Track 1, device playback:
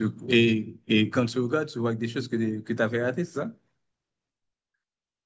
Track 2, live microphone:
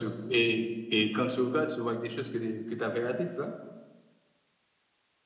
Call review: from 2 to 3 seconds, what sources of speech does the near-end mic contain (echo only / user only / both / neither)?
echo only